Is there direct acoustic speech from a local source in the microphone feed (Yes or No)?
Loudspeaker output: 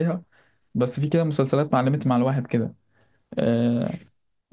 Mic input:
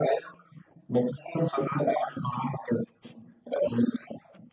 No